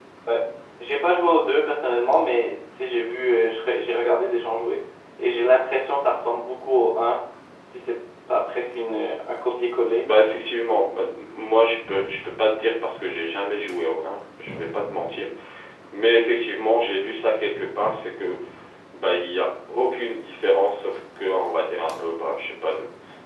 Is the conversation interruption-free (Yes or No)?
Yes